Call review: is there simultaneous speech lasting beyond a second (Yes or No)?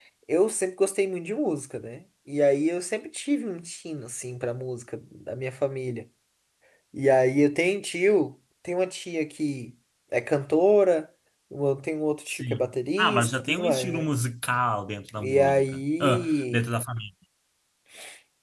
Yes